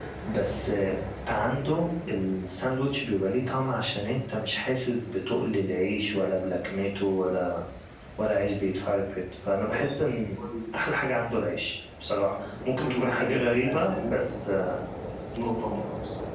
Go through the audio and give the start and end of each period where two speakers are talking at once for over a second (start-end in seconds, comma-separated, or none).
12.8-14.3